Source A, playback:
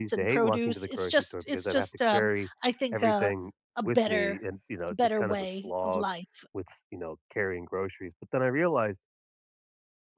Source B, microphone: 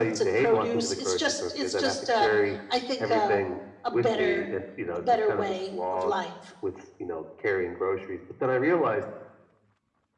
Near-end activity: none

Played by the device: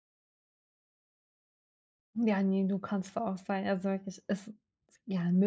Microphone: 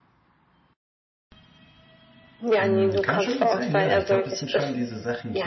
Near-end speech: present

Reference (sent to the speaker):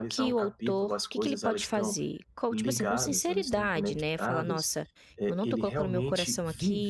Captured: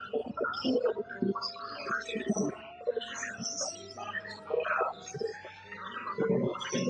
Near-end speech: none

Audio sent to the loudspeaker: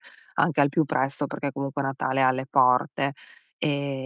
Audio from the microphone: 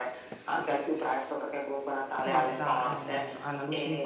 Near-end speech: present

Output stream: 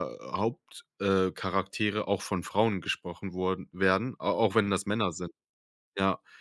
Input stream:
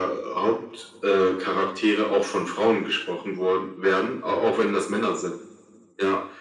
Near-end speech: none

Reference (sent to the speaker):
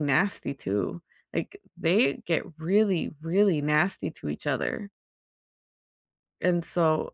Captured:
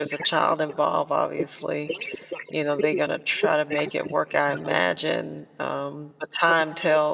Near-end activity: present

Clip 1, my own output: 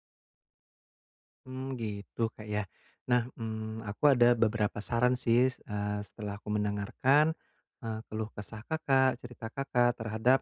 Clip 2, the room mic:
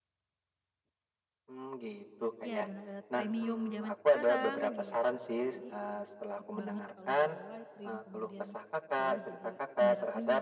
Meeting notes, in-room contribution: present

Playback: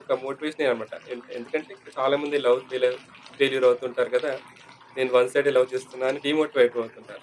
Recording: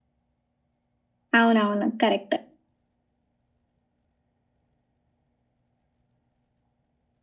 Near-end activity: present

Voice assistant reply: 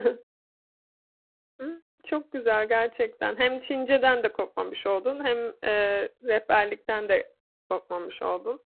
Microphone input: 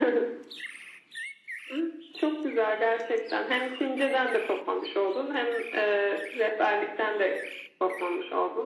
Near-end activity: none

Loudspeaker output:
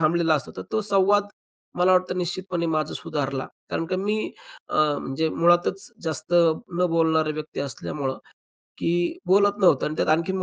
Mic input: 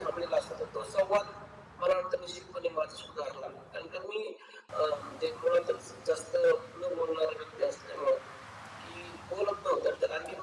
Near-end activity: none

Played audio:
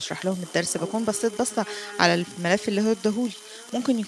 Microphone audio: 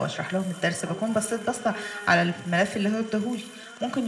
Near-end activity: none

